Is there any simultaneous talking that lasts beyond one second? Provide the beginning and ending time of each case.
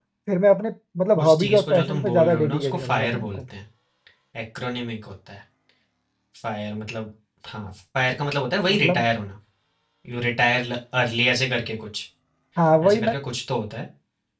1.2-3.4

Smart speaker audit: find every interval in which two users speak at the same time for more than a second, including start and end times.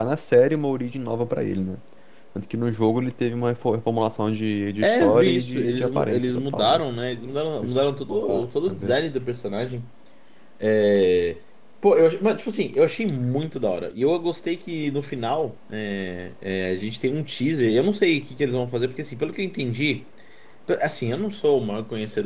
4.8-6.8, 7.6-8.9

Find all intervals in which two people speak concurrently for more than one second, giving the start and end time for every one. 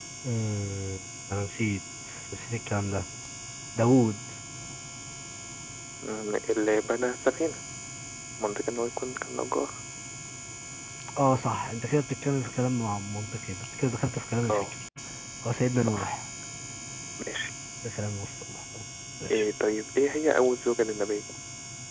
none

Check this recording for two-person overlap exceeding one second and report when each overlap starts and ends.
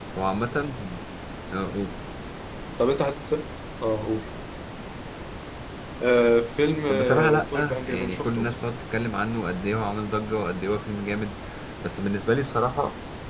6.9-8.5

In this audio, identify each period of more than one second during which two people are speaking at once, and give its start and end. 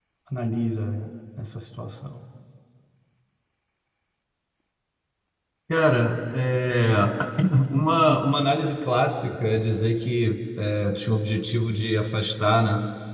none

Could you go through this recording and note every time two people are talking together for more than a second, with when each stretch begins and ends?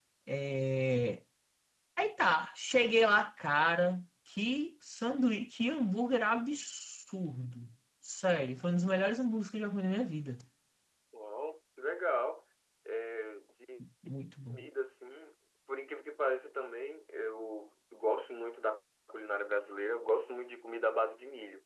none

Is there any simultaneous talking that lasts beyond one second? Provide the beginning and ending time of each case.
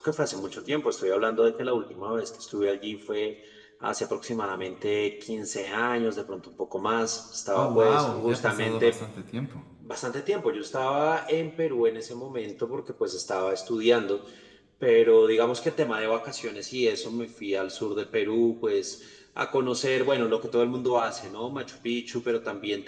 7.5-8.9

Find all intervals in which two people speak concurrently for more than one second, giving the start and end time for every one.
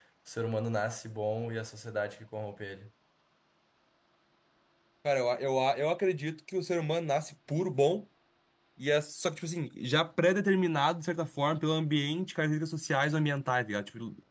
none

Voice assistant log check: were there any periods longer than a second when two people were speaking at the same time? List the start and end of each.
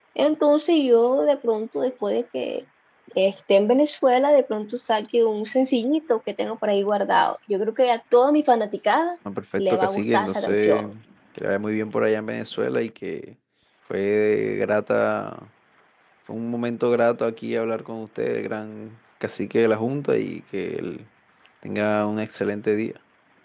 9.6-10.8

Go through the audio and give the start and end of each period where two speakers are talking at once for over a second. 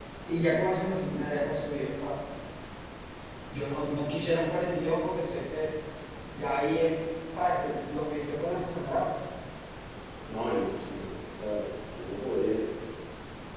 none

